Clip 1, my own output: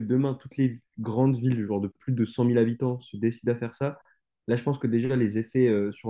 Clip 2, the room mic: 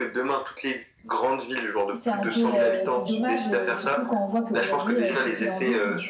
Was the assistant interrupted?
Yes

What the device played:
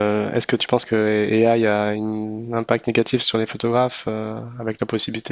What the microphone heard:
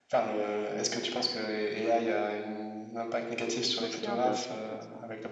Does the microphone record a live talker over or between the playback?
Yes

